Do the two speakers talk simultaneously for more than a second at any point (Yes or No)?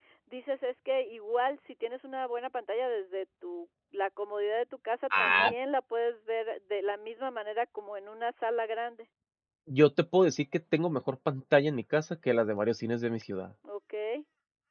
No